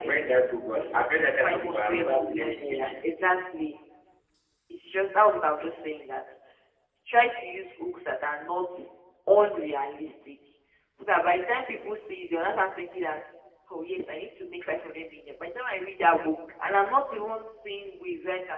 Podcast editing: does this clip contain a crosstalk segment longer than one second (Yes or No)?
Yes